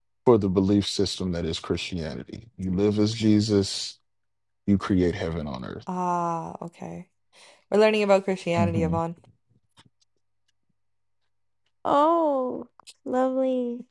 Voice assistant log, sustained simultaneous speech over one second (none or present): none